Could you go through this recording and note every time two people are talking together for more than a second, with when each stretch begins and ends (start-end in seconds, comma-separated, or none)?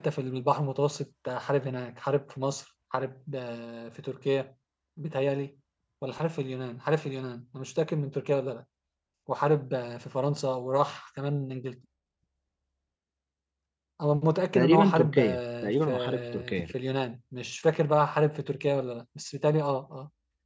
14.6-16.5